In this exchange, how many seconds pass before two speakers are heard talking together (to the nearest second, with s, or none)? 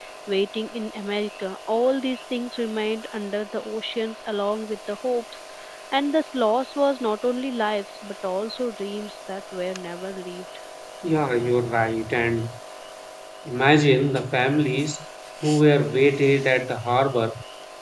none